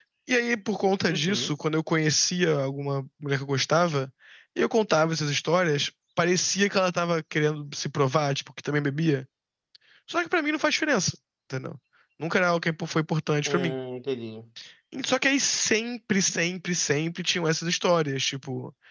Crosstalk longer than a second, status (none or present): none